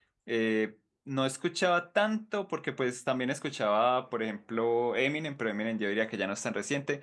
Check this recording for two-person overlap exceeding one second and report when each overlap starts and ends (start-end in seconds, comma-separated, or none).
none